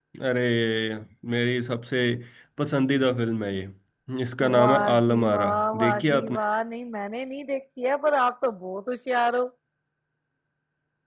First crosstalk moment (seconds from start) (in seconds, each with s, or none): 4.6 s